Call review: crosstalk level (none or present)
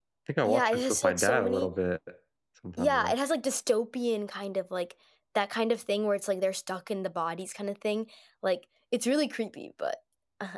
present